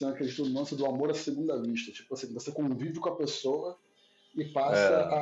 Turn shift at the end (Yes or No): No